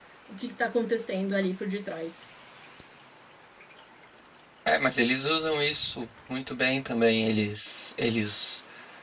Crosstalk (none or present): none